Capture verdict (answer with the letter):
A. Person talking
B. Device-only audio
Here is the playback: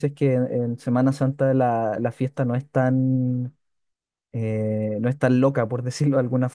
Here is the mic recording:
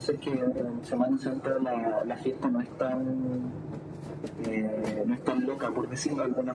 B